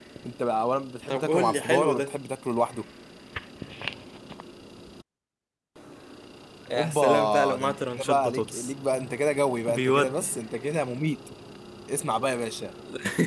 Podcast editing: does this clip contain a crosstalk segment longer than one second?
Yes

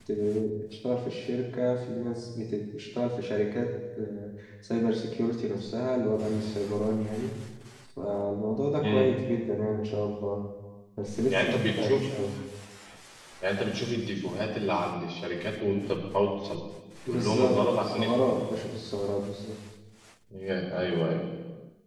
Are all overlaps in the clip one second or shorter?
No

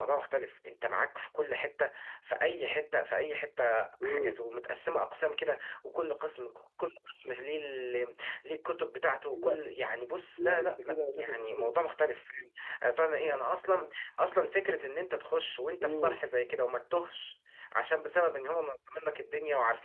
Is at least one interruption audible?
Yes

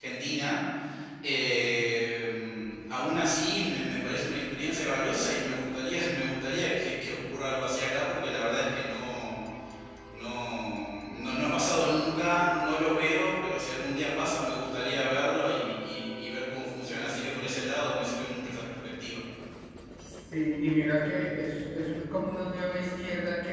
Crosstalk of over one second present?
No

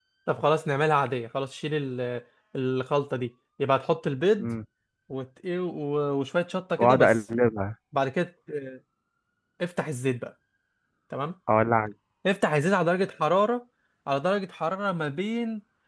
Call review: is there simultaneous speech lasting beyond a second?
No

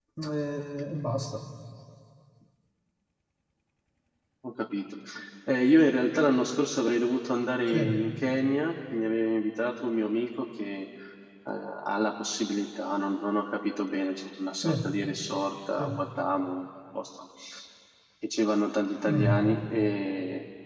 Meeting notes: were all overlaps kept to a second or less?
Yes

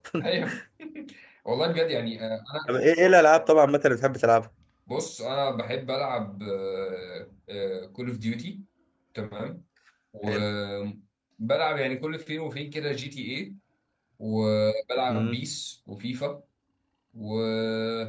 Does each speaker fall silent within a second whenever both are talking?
Yes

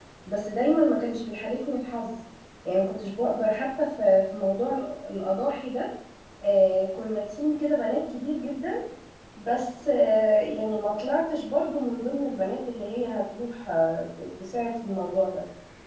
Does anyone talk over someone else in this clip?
No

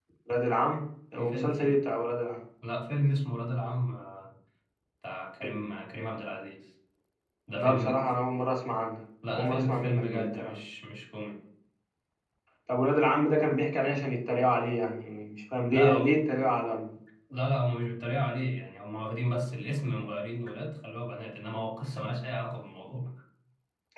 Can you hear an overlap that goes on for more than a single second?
Yes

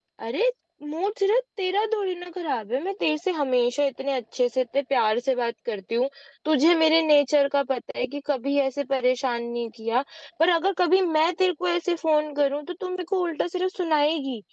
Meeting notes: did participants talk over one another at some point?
No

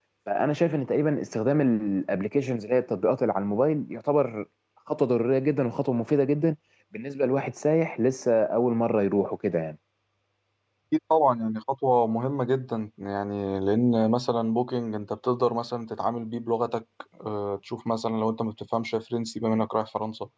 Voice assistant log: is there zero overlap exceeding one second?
Yes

